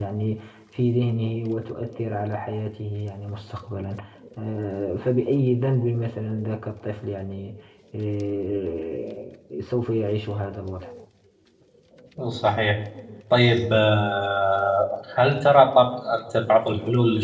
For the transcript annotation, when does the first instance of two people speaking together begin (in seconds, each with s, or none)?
none